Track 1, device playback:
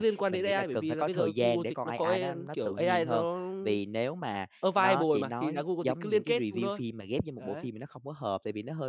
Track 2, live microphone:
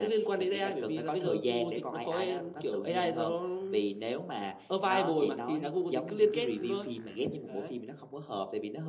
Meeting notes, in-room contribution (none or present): none